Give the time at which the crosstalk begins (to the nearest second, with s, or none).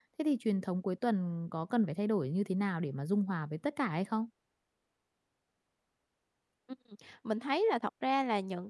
none